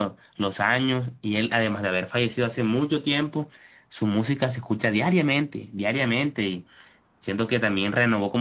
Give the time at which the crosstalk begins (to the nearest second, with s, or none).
none